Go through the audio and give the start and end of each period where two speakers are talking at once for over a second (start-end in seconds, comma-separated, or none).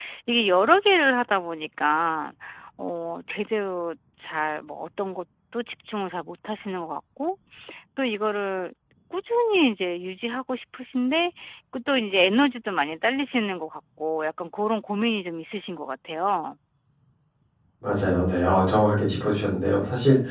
none